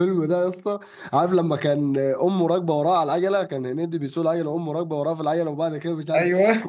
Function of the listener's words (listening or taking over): listening